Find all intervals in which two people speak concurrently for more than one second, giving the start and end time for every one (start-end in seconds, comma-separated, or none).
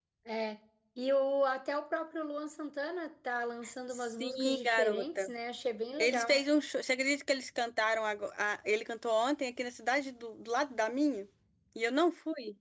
3.9-5.3